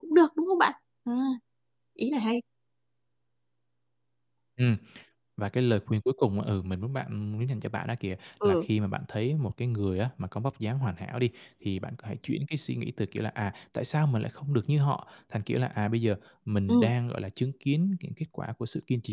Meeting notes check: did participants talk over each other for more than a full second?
No

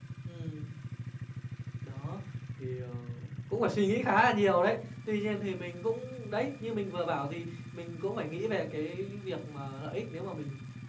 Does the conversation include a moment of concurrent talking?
No

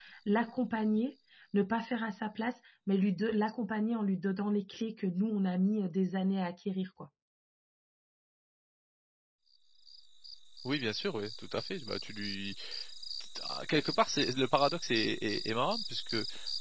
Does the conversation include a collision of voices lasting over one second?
No

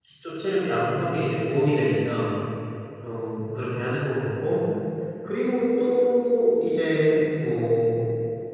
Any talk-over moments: No

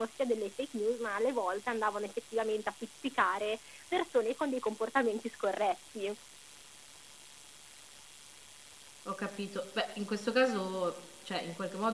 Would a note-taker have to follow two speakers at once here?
No

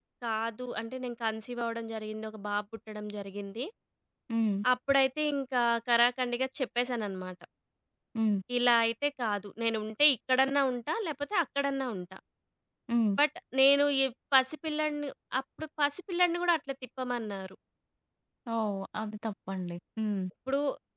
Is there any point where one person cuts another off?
No

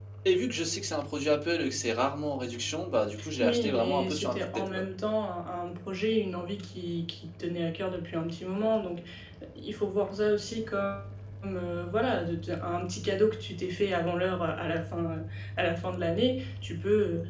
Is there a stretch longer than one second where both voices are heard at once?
Yes, from 3.2 s

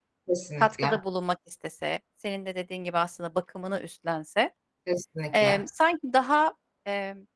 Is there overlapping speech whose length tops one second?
No

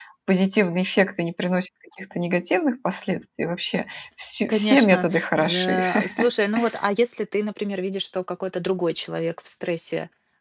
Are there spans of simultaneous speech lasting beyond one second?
Yes, from 4.5 s

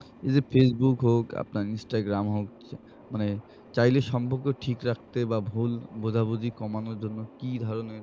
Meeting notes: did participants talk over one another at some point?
No

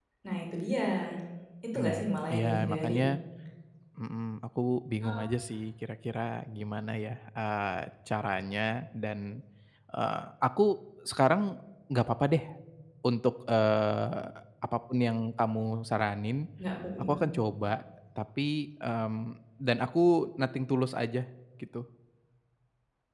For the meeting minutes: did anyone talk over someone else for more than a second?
Yes, from 1.8 s

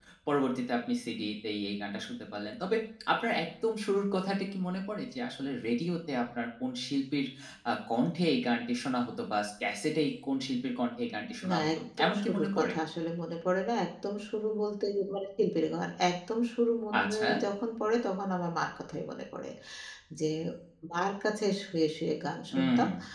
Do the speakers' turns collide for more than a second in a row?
Yes, from 11.5 s

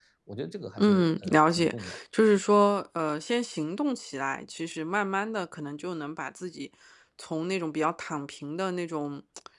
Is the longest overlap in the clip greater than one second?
Yes, from 0.8 s

